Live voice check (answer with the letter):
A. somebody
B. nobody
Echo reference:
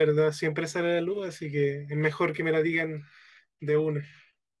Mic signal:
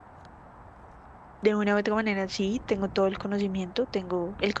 A